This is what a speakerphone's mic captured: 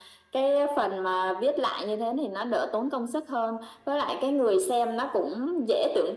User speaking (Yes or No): No